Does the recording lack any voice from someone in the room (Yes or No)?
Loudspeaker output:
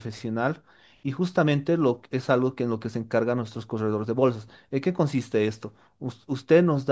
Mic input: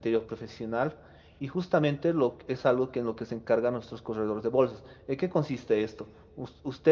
Yes